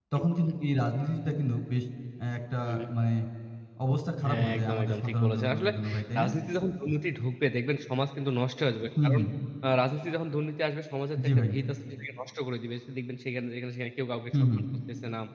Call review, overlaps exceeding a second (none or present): present